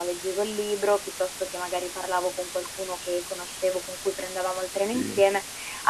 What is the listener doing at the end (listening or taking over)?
listening